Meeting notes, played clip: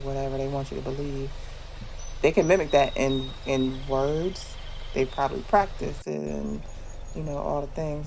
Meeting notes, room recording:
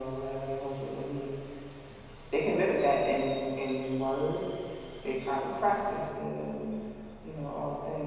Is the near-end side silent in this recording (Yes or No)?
Yes